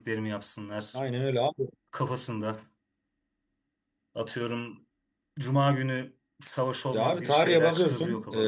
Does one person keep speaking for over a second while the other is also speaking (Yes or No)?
Yes